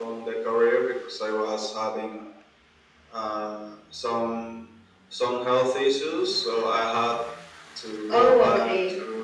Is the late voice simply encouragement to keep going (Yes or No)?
Yes